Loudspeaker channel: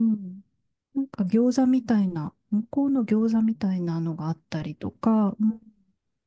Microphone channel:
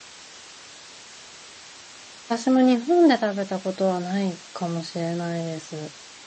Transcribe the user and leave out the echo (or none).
私も日本で食べたことはないかもしれないです。